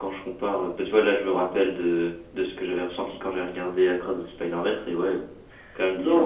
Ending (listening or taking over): taking over